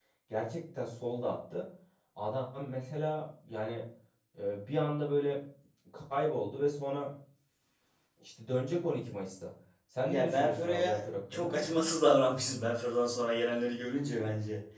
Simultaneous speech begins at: 10 s

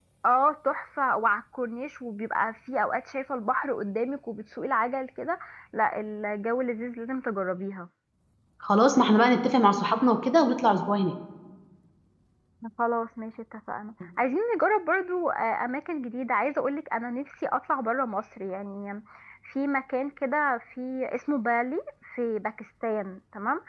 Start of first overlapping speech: none

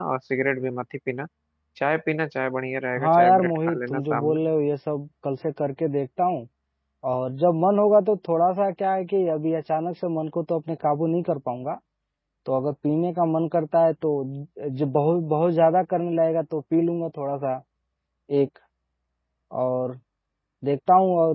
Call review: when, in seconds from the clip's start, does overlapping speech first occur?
3 s

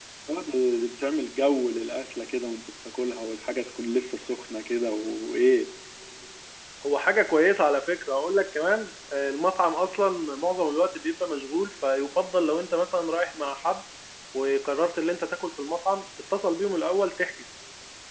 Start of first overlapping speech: none

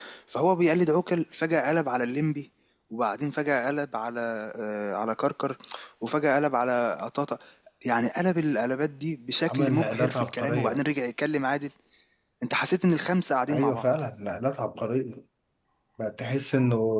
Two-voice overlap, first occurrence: 9 s

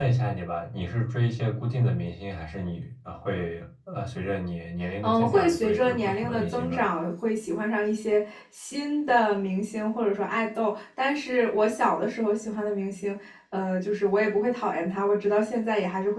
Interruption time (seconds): 5 s

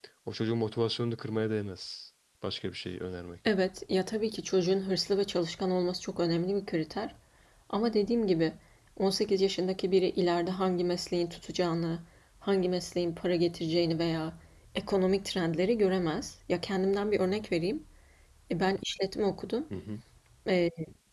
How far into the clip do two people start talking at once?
none

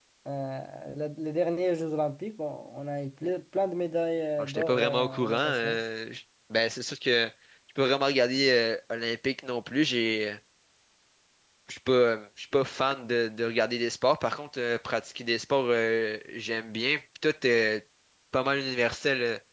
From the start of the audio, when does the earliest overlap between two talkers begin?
4 s

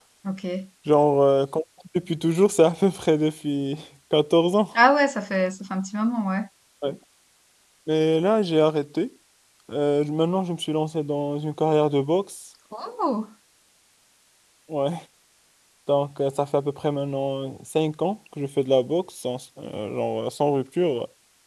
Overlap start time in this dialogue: none

